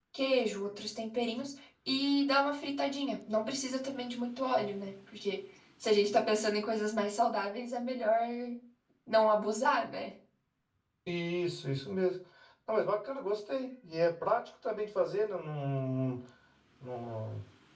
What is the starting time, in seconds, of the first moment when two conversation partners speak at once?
none

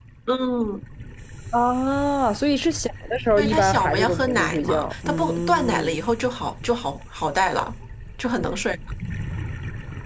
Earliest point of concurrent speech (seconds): 3.4 s

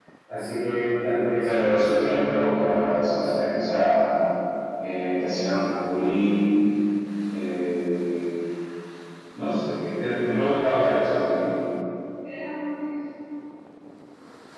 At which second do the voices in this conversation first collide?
1.4 s

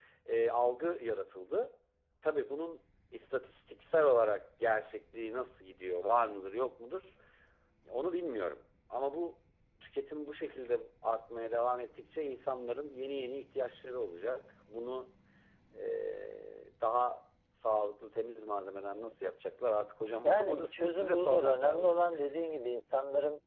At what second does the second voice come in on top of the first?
20.2 s

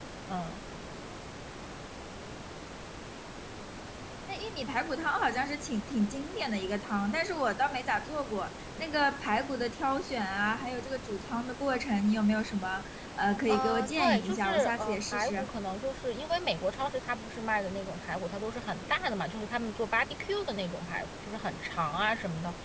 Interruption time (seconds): 13.5 s

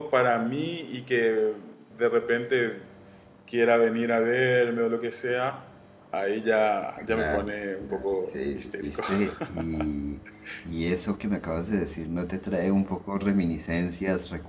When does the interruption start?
7.0 s

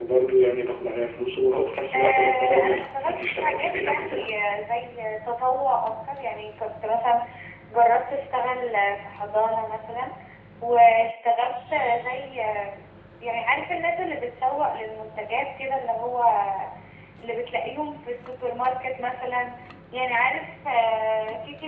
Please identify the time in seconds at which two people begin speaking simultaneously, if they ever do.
1.9 s

